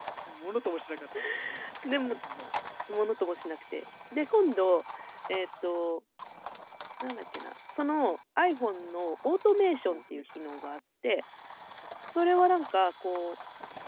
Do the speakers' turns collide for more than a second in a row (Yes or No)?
No